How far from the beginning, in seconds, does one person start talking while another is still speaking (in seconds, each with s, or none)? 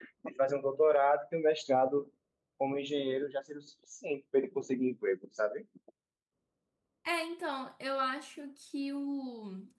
none